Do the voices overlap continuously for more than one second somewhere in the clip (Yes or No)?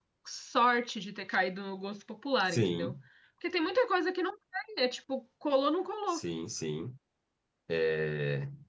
No